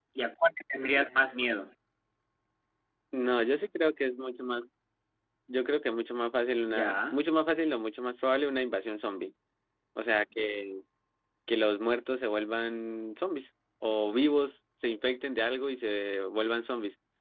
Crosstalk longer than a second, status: none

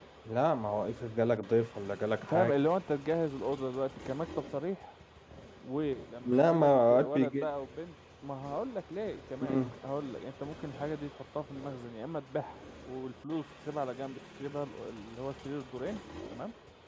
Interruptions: present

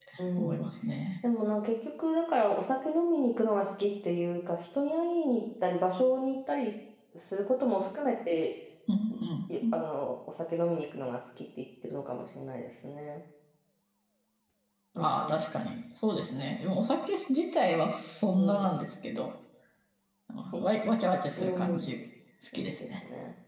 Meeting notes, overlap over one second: none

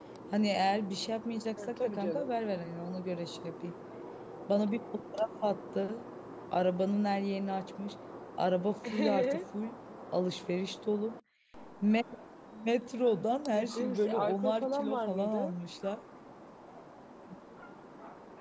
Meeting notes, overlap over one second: present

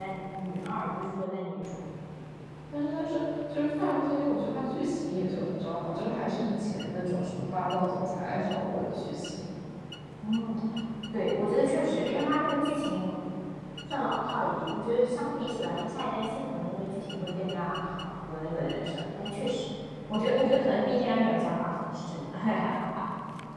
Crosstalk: none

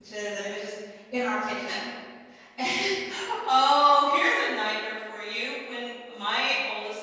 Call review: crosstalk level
none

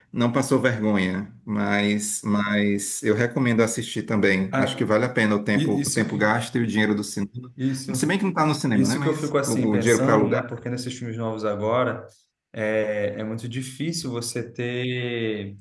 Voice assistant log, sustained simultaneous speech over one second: present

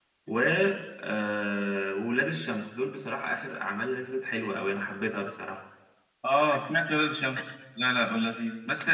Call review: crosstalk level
none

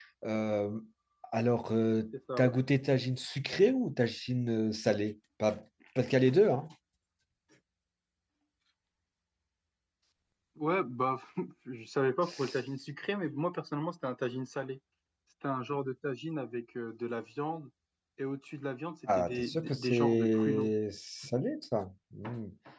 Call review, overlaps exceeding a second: present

